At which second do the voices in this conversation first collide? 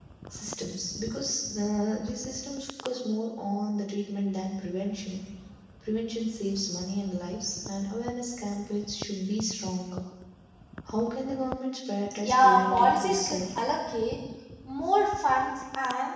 12.1 s

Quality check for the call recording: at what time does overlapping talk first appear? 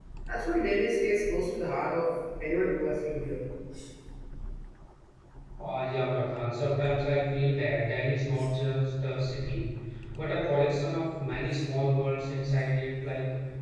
none

